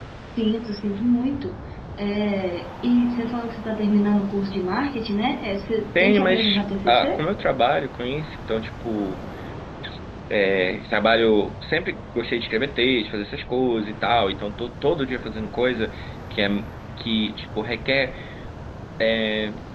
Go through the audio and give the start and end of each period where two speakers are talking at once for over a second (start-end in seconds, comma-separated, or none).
6.0-7.2